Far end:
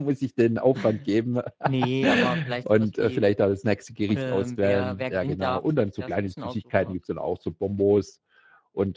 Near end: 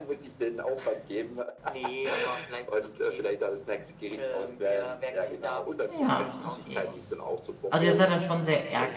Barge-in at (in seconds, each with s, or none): 5.9 s